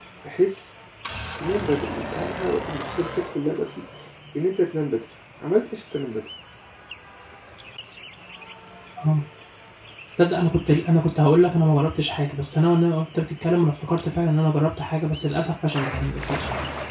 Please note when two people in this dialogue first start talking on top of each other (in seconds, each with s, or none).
none